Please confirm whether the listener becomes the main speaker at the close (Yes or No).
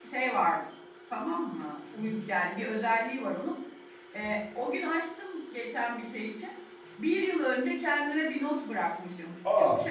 No